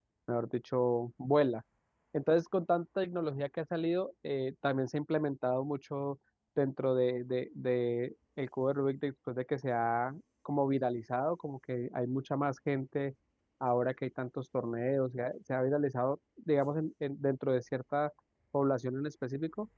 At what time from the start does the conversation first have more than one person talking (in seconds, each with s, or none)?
none